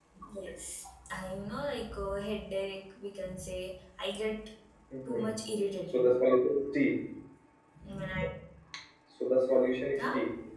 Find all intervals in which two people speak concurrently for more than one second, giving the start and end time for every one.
none

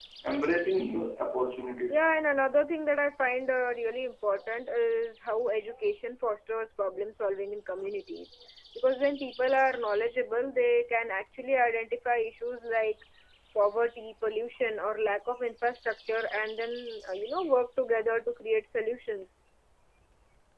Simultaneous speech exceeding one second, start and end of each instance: none

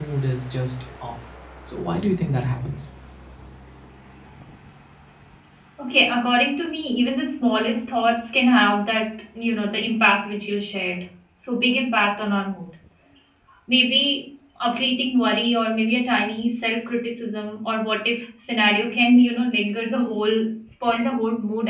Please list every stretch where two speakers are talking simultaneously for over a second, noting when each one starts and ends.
none

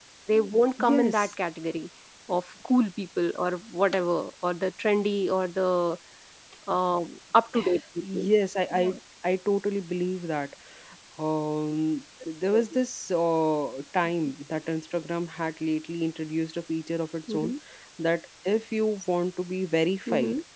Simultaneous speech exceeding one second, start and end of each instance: none

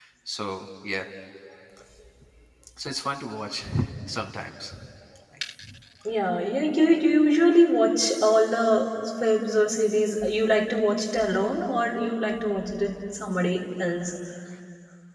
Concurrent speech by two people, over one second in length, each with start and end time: none

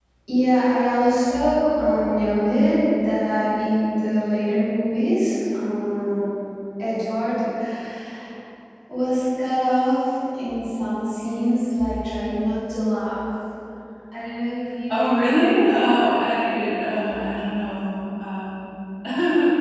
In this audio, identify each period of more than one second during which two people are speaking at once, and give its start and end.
14.9-16.3

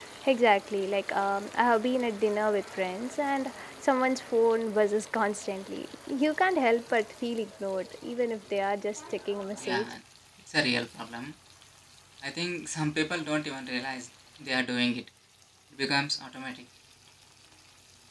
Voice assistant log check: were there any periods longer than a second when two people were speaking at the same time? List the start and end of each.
none

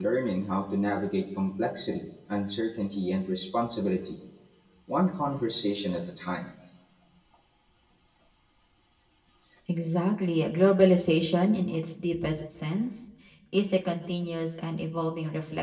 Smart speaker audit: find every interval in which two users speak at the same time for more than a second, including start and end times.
none

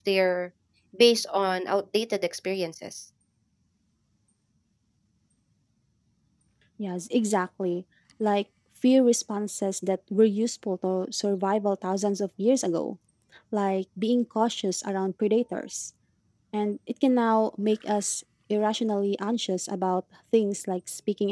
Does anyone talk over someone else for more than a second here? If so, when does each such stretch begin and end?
none

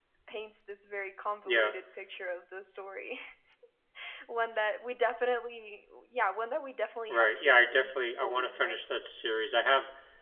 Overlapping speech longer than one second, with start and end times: 7.1-8.8

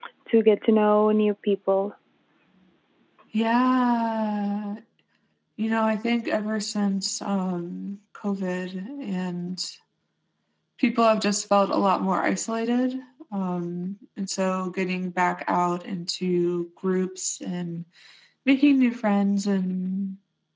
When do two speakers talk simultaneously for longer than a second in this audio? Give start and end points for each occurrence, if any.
none

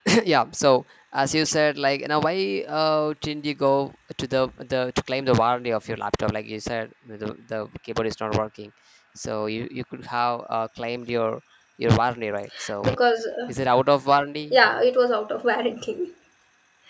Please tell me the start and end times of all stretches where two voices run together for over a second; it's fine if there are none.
none

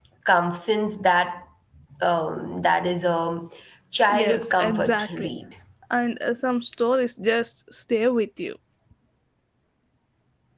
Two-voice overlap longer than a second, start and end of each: 4.1-5.3

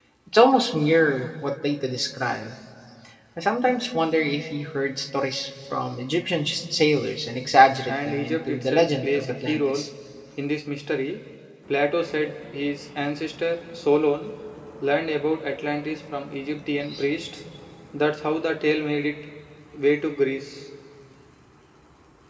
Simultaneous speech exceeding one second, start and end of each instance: 7.9-9.8

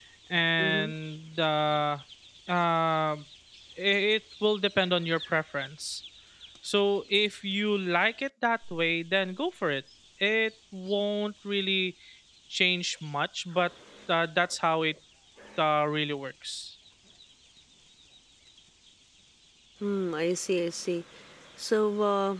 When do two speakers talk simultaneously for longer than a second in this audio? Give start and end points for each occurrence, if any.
none

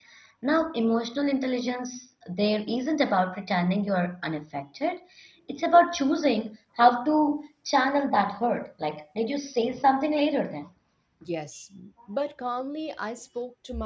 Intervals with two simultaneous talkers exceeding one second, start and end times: none

